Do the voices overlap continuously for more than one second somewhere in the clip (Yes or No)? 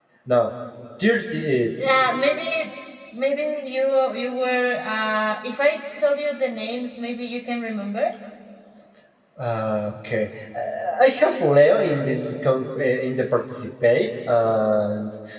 No